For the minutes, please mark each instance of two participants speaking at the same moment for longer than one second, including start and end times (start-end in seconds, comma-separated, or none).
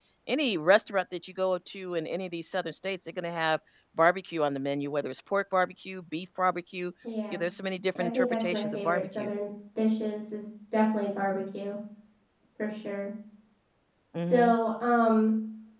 8.0-9.3